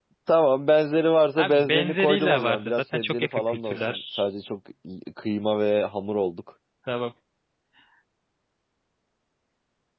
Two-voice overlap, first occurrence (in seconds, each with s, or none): 1.4 s